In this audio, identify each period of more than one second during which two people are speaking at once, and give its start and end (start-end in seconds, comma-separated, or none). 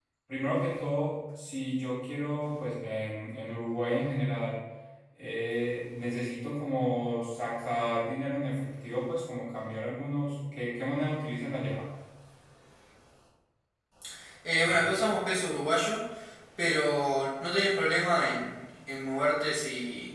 none